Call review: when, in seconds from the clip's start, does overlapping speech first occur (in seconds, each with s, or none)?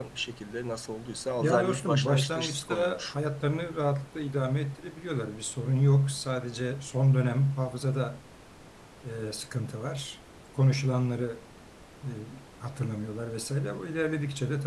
1.4 s